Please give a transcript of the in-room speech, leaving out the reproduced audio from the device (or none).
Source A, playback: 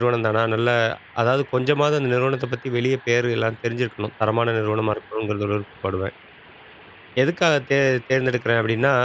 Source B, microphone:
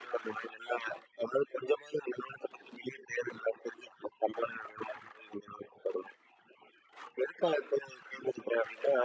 none